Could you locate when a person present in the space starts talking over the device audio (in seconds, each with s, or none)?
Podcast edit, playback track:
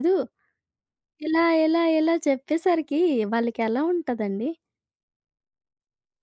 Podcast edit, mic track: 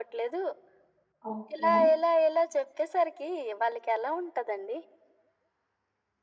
1.3 s